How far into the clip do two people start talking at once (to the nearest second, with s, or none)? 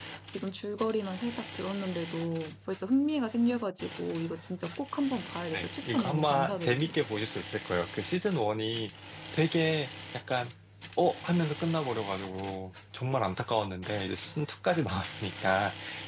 6 s